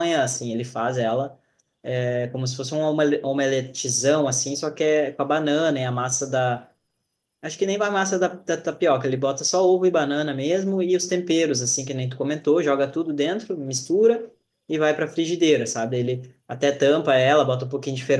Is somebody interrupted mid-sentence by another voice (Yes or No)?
No